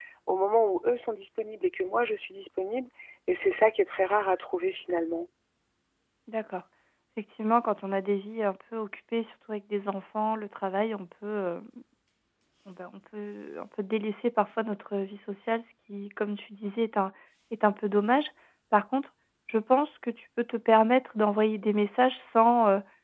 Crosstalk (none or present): none